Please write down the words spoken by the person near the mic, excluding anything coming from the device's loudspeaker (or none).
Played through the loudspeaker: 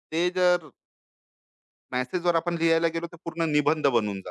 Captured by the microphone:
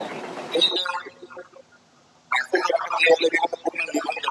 none